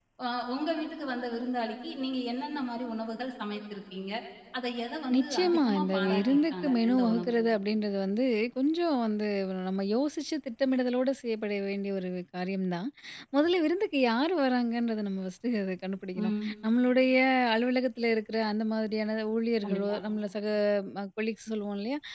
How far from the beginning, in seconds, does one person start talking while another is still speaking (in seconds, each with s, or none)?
5.2 s